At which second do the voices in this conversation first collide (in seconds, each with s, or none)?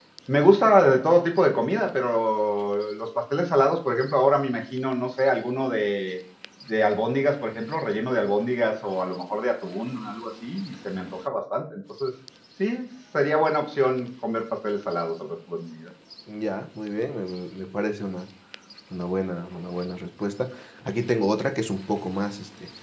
none